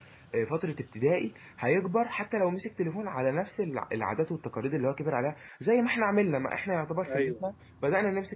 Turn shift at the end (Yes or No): No